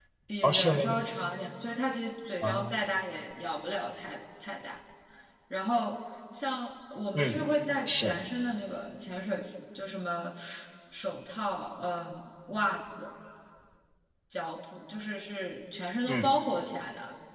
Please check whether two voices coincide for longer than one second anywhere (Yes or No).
No